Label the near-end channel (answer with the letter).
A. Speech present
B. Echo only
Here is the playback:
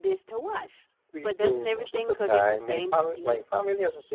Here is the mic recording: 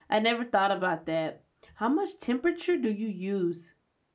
A